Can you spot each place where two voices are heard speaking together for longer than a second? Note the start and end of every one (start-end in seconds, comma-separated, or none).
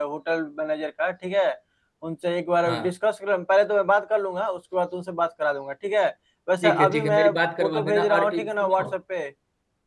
6.6-8.9